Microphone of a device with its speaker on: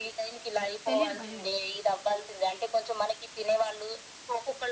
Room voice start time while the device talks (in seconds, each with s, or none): 0.9 s